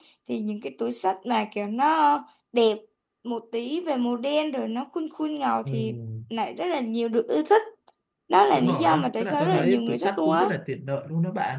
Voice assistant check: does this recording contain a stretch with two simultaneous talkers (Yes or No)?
Yes